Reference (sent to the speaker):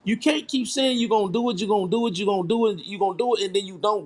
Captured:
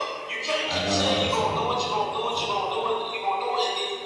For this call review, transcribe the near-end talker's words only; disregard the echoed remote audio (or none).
I got an aunt that's a notary, so